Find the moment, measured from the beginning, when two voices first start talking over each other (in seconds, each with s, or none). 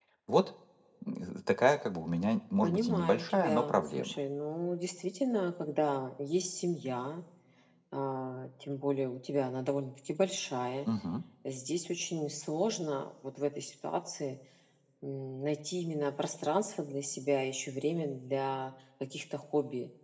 2.6 s